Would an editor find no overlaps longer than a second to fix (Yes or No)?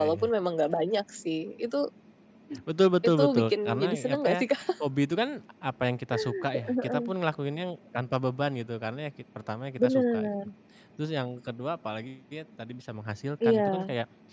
No